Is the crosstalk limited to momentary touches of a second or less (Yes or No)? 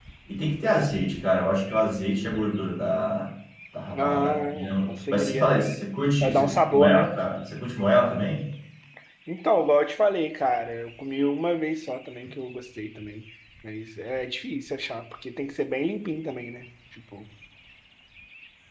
No